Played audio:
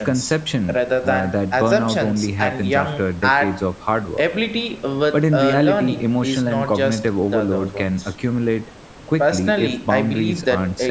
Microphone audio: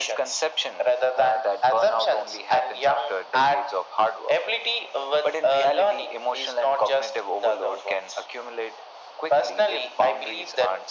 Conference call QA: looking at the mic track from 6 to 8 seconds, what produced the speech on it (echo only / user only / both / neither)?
echo only